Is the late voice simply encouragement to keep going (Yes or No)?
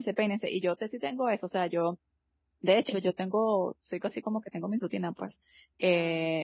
Yes